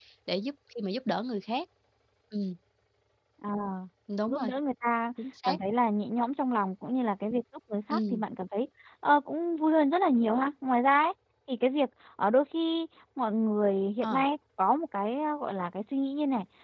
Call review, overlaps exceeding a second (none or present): none